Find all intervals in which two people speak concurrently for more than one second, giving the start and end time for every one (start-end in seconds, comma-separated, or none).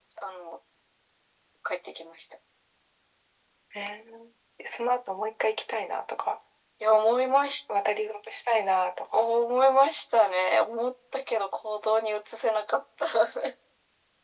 none